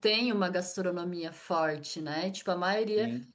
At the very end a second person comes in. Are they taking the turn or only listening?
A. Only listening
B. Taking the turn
A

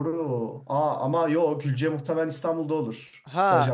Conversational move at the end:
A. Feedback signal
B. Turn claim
B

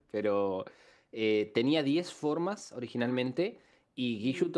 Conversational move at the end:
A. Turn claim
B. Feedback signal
B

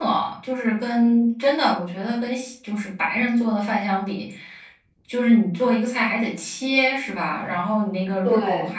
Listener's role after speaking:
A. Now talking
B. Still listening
B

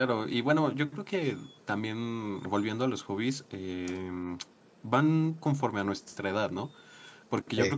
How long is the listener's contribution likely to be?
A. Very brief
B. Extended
A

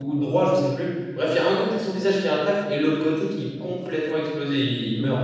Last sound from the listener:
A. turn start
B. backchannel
A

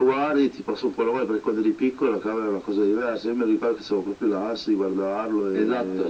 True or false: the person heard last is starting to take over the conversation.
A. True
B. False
A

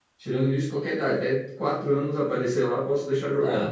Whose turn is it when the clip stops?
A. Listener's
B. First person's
A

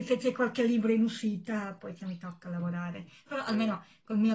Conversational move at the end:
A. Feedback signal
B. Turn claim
A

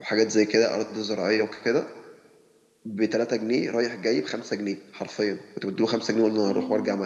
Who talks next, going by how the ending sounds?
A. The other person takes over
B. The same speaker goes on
B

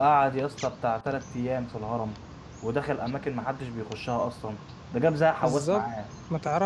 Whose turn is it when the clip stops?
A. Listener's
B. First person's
A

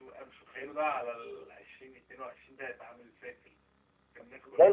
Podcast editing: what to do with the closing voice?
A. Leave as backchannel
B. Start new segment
B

